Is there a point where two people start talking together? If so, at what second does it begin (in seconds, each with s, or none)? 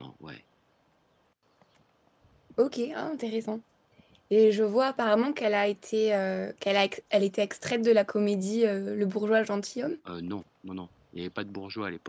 none